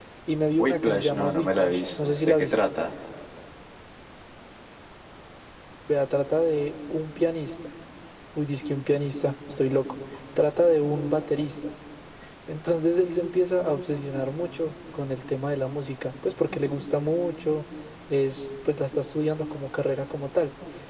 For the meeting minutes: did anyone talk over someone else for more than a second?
Yes, from 0.6 s

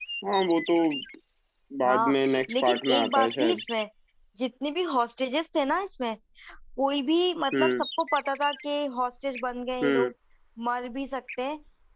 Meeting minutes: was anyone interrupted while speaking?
Yes, from 1.9 s

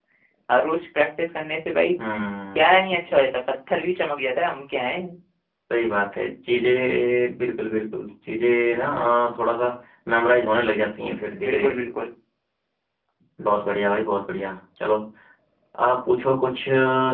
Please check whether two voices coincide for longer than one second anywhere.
No

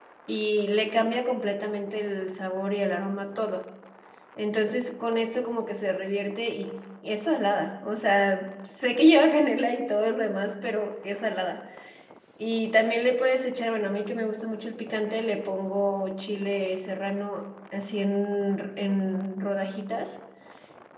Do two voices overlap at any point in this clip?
No

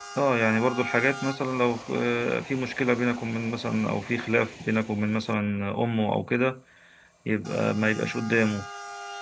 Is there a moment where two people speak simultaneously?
No

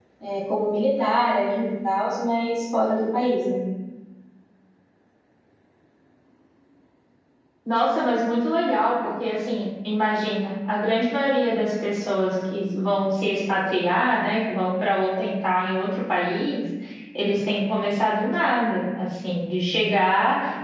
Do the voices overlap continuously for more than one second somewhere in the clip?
No

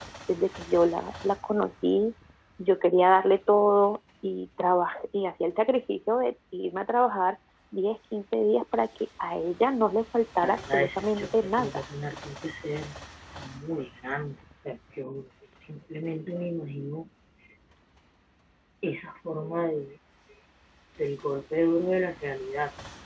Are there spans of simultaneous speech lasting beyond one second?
Yes, from 10.4 s

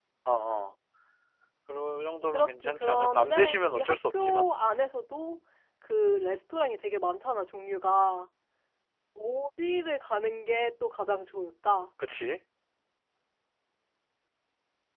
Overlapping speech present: Yes, from 2.3 s

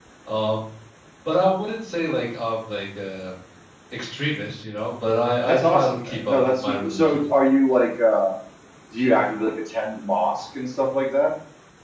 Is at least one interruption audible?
Yes, from 5.5 s

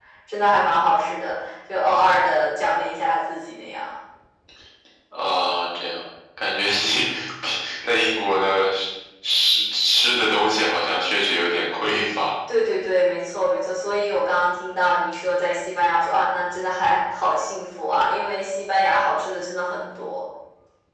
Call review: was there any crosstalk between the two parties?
No

